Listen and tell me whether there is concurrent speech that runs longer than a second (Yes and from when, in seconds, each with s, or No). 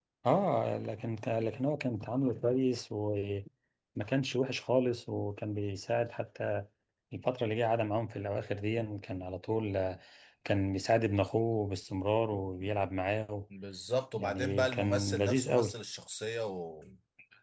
Yes, from 14.2 s